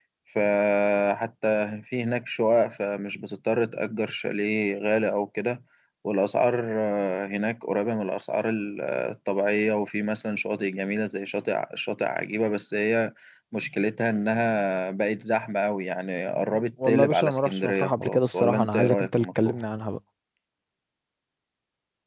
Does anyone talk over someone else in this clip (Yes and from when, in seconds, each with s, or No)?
Yes, from 16.8 s